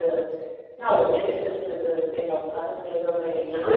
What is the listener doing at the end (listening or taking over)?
taking over